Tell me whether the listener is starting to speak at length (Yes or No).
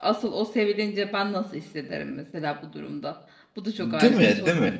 Yes